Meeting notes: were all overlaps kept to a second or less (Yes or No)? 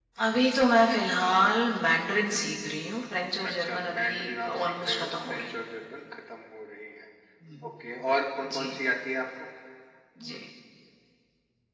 No